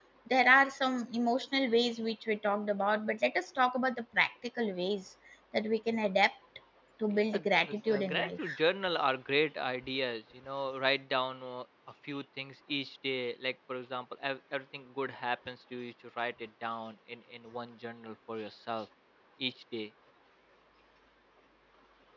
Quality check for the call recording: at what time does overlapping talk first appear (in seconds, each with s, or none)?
7.1 s